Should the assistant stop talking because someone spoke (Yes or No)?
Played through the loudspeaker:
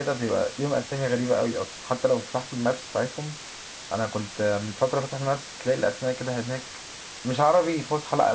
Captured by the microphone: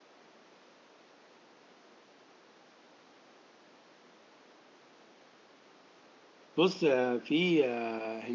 Yes